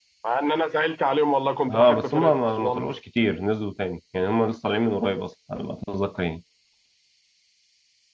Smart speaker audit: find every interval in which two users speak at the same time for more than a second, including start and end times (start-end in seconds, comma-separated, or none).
1.7-3.0